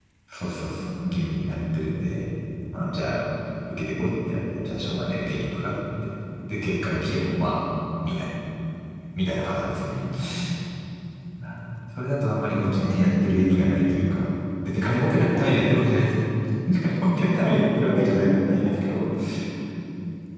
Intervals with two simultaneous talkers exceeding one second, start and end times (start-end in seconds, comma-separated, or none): 17.4-19.0